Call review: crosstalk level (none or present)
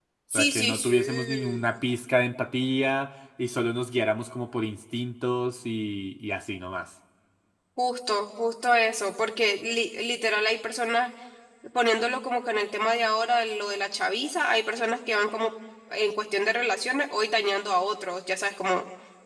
present